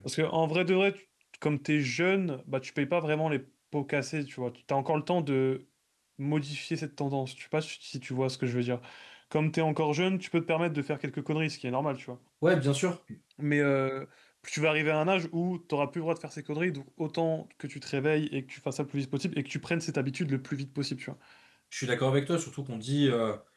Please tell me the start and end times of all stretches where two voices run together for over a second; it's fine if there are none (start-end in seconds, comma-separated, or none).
none